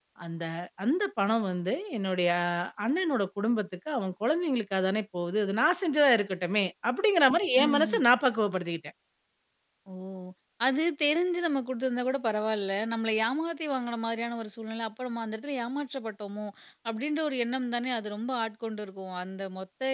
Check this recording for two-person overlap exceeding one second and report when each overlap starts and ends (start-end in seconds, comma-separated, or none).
none